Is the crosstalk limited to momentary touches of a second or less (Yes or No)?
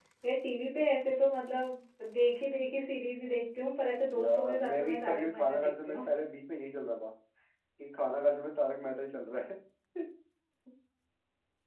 No